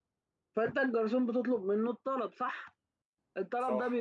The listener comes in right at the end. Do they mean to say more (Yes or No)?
No